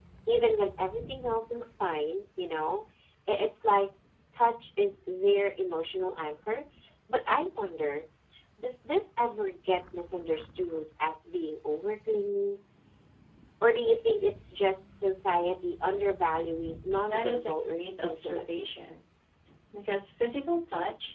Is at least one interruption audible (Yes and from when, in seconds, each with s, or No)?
Yes, from 17.1 s